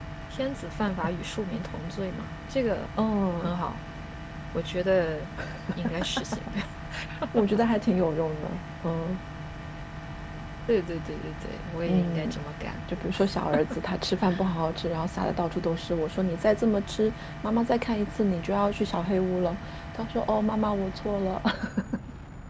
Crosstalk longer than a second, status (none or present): none